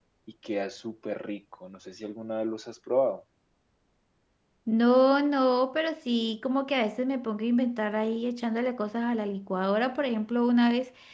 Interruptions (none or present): none